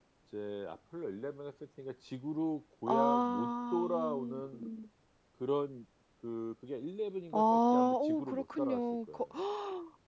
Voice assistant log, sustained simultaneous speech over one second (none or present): present